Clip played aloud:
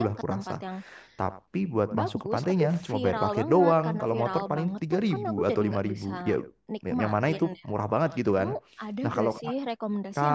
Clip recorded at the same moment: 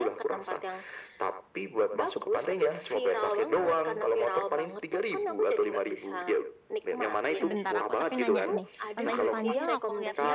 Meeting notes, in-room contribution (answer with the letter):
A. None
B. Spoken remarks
B